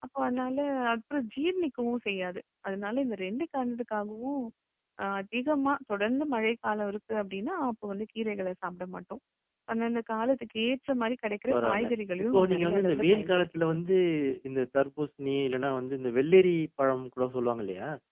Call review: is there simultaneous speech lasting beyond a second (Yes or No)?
Yes